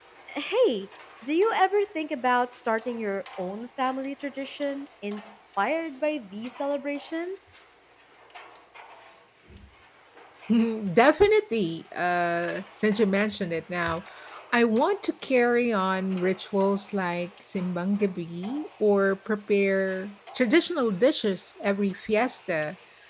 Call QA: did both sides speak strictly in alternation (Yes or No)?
Yes